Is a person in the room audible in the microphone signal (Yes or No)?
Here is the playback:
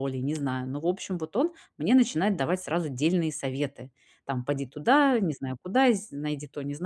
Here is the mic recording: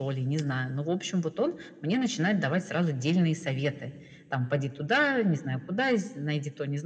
No